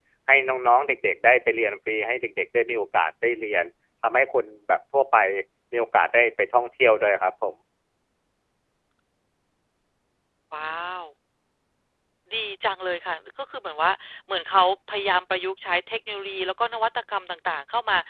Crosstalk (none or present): none